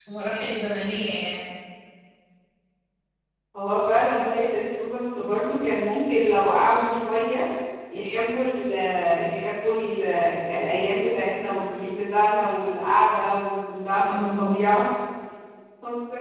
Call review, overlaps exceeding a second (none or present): none